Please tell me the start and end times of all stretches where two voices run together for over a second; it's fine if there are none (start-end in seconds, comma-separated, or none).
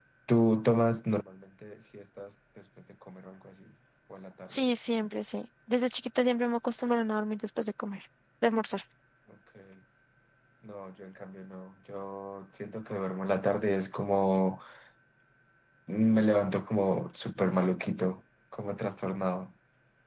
none